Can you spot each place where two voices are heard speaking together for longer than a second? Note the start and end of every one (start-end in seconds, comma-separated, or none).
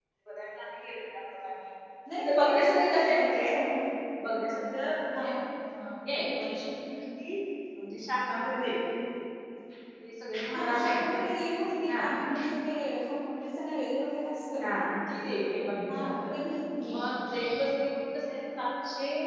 2.2-3.5